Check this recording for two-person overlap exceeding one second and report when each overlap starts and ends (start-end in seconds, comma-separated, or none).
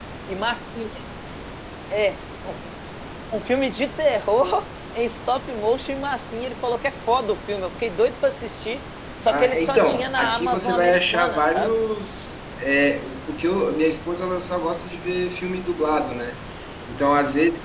9.3-11.8